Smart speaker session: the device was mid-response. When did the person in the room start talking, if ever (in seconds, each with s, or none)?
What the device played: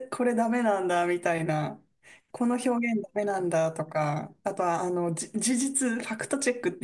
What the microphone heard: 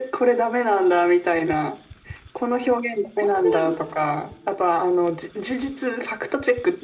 3.2 s